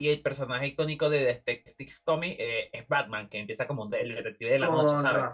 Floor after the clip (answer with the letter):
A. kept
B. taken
B